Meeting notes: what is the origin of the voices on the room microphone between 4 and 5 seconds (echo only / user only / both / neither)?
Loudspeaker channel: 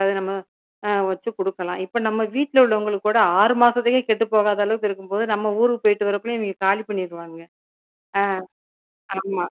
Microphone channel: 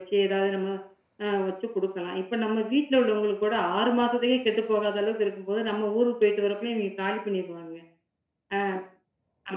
echo only